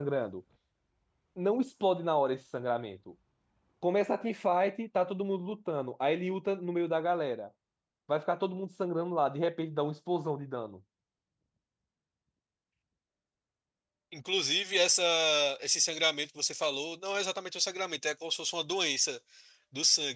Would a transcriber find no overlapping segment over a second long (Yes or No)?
Yes